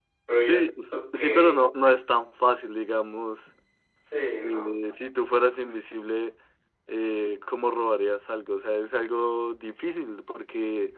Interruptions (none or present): present